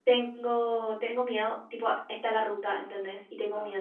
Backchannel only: Yes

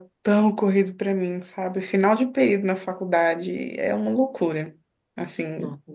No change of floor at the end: Yes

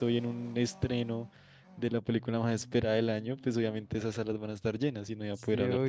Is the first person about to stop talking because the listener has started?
Yes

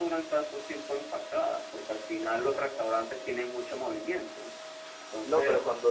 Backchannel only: No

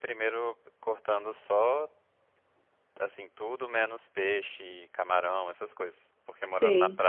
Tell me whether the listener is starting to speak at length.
No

